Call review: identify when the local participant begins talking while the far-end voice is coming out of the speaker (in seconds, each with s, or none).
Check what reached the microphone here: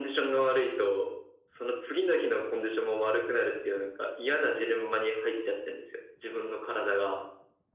none